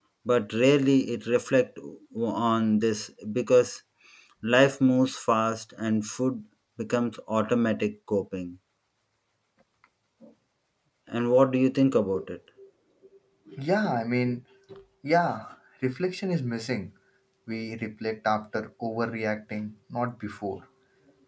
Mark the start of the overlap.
none

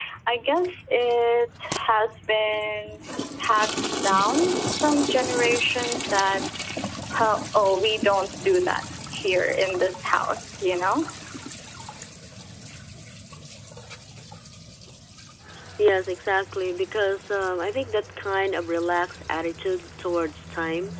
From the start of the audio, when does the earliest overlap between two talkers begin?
none

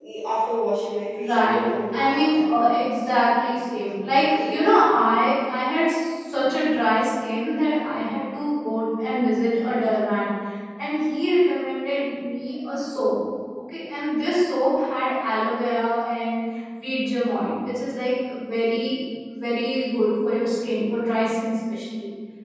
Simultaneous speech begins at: 1 s

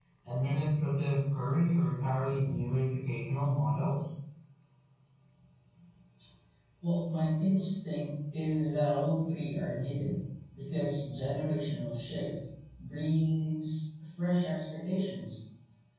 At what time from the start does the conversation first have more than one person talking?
none

